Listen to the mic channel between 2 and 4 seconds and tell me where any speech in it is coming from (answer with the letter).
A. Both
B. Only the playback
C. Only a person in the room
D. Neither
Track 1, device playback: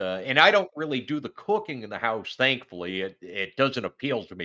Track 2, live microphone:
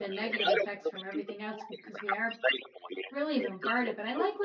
A